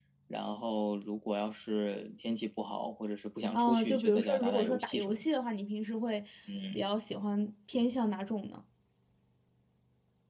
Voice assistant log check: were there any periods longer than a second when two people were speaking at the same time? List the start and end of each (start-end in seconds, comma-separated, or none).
3.5-5.3